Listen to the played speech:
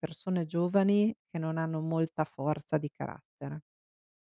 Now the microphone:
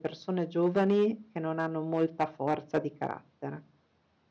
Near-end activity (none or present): none